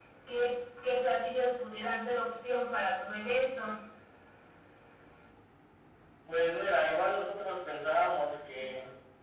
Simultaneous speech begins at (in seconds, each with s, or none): none